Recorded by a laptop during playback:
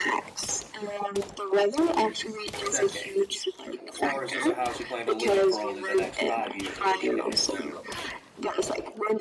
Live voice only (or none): a decade? Or is this a house you plan to live in for only the next five years, in which case